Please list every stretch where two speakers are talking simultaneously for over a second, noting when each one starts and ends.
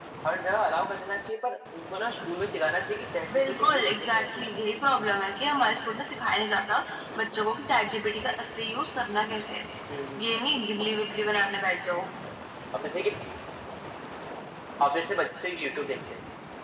3.3-4.8

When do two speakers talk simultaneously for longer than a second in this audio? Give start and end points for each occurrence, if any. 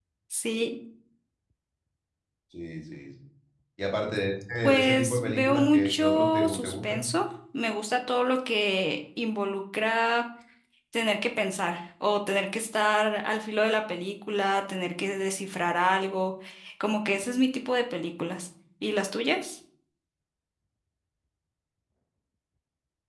4.6-7.1

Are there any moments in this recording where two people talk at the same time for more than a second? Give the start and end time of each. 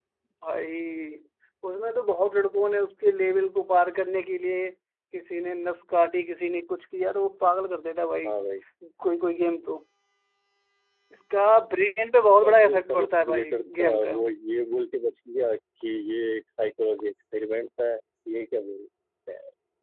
12.4-14.2

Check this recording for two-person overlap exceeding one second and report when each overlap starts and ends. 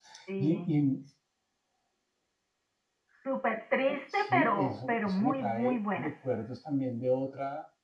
4.1-6.1

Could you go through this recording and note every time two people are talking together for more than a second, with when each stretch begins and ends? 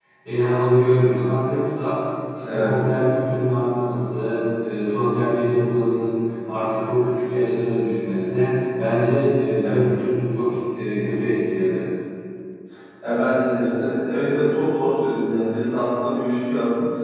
none

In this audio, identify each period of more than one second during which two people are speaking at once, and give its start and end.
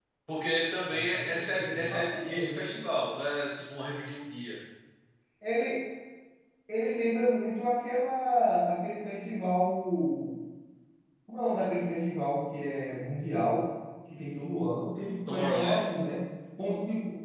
0.8-2.8

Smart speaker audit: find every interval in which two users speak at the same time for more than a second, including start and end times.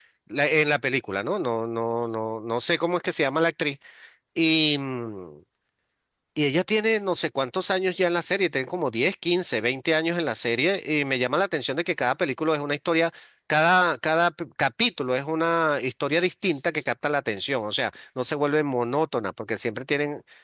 none

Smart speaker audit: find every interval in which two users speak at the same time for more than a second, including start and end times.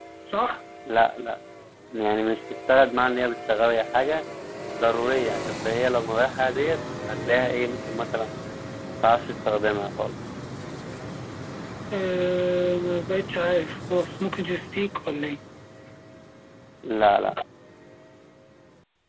none

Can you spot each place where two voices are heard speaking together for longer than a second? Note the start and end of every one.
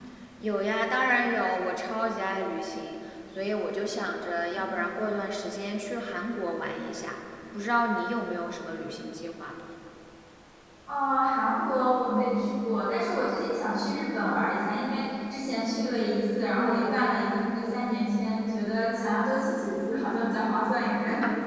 none

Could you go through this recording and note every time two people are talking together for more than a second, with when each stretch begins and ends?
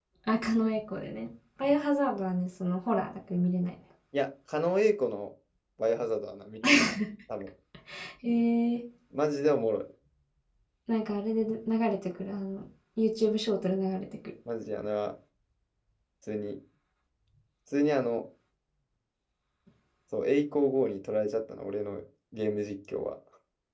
none

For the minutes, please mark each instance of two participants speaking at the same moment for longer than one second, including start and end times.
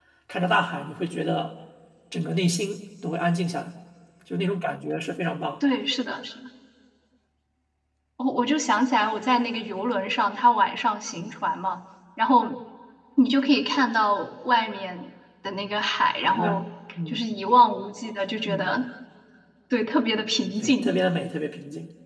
none

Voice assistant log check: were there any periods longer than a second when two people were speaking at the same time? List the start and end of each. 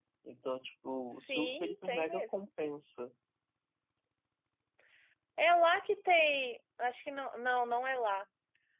1.1-2.3

